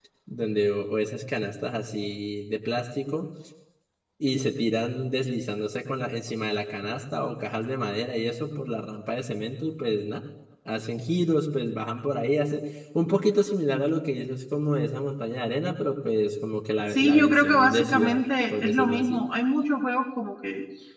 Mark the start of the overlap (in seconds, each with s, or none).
16.9 s